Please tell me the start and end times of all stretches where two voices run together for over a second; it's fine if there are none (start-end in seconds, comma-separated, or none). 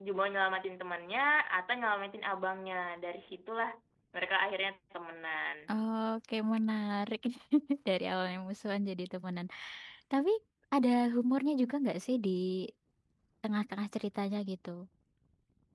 none